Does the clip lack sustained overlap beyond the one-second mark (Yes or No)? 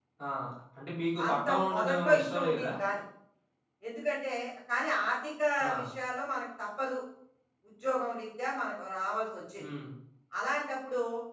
No